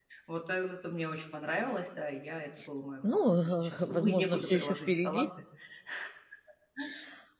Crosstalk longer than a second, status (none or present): present